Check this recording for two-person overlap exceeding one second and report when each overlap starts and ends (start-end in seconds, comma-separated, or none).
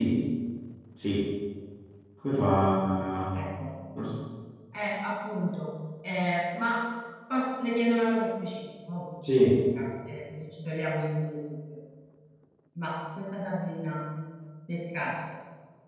none